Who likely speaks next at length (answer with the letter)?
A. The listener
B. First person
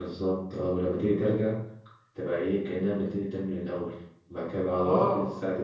B